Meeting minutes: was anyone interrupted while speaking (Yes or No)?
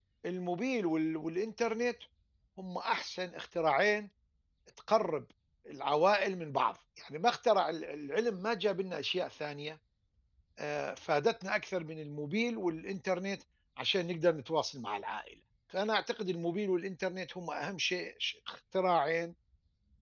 No